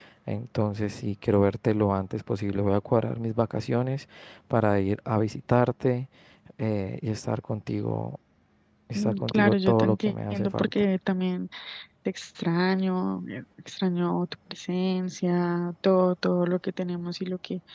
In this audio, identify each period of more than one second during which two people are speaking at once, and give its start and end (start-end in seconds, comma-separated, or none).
8.9-10.7